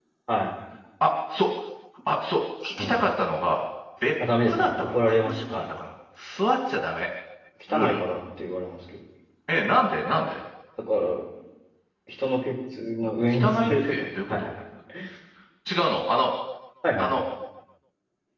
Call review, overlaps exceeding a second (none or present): present